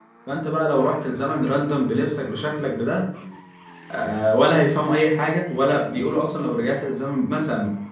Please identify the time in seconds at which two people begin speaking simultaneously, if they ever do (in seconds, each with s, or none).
none